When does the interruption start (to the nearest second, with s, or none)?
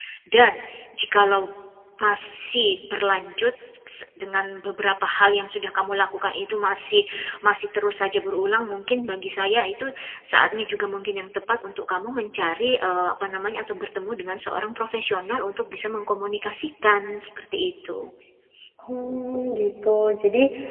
none